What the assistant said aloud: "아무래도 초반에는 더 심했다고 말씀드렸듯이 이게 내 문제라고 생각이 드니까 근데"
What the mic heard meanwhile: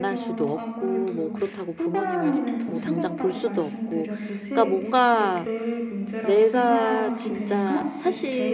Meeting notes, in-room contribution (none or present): present